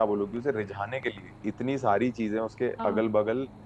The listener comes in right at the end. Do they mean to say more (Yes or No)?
No